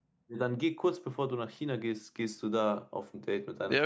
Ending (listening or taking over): taking over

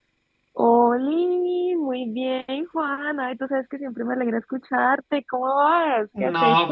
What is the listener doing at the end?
taking over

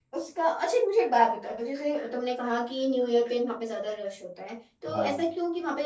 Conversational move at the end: listening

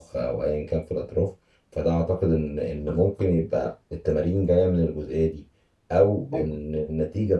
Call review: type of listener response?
listening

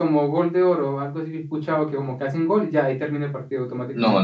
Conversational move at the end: taking over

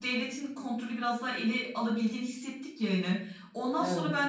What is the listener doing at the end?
listening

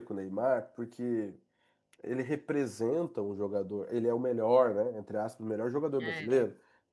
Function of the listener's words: listening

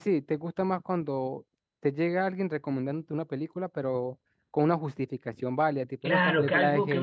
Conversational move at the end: taking over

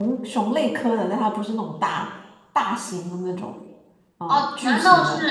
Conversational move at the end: taking over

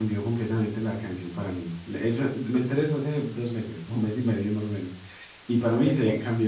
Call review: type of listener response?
listening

